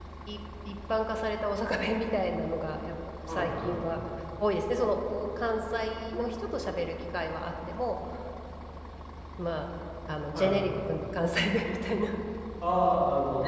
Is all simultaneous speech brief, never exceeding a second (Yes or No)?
Yes